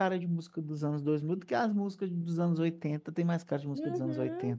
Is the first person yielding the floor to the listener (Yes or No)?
Yes